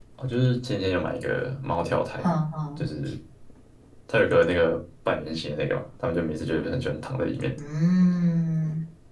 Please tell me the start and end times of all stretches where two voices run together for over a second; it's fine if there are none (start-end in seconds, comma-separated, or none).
none